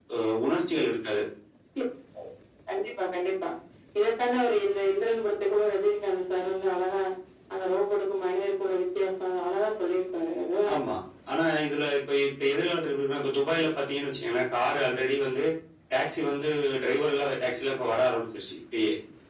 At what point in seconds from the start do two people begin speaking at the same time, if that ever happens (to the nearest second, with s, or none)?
none